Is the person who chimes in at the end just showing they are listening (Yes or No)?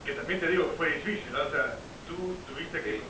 Yes